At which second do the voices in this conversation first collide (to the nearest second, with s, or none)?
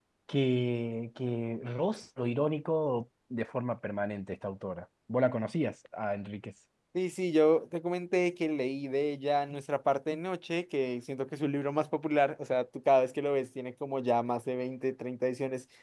none